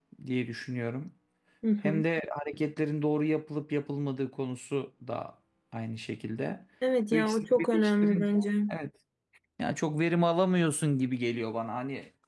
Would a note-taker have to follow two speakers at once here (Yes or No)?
Yes